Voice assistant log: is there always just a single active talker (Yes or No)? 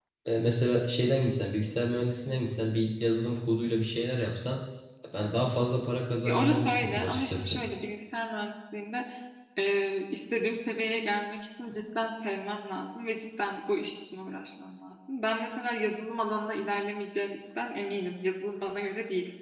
No